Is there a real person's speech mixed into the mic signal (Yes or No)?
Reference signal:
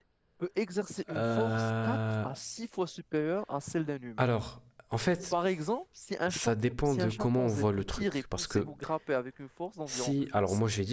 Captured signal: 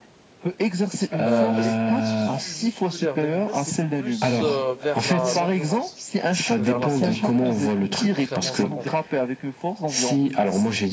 Yes